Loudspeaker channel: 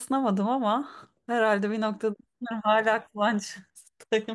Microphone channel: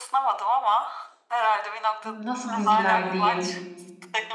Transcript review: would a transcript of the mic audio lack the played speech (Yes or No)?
No